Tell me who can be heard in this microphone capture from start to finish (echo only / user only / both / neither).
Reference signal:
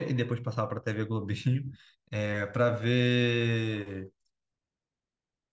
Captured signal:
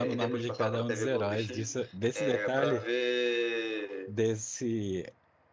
both